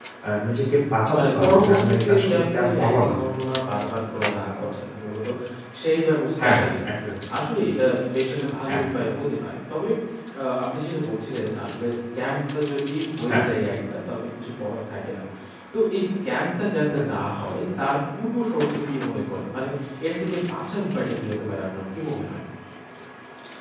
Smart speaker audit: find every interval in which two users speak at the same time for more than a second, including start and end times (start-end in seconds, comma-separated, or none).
1.1-3.1